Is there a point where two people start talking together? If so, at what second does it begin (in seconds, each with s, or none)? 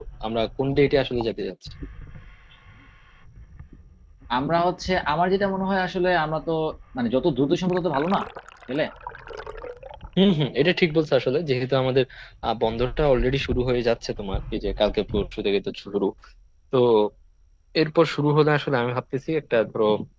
none